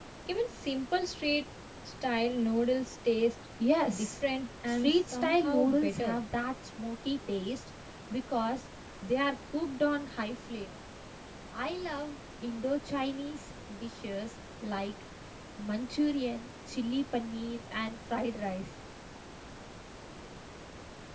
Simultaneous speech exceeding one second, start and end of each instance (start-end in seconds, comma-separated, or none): 4.7-6.2